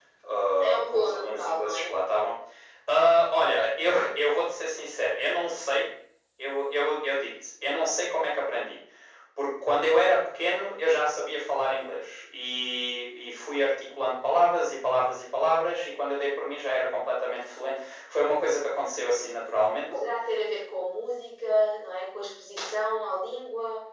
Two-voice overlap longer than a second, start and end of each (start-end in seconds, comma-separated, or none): 0.6-2.0